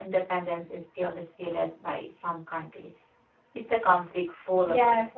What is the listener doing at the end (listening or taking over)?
taking over